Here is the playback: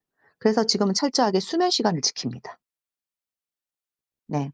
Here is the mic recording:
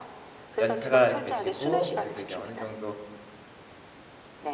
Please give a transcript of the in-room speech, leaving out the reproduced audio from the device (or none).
연차가 되시고 그래도 이제 어느 정도